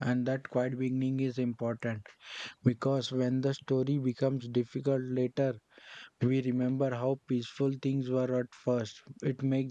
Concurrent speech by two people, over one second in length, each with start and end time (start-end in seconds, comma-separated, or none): none